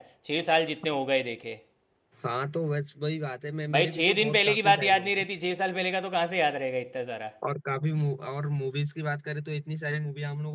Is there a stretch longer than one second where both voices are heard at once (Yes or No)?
Yes